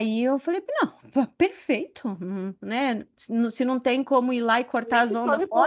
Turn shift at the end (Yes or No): Yes